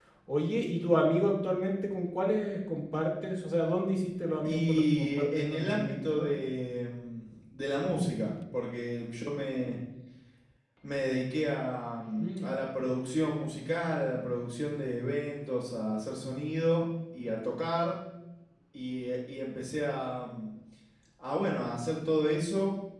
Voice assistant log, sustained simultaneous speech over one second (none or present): present